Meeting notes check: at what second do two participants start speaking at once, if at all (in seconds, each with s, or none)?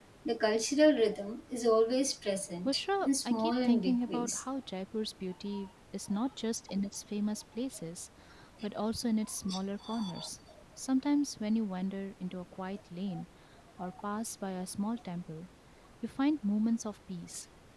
2.6 s